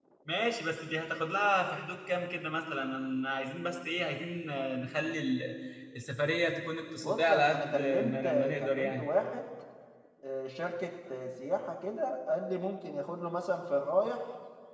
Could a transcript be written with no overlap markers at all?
No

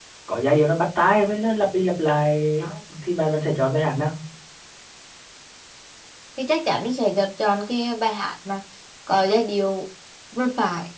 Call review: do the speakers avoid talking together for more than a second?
Yes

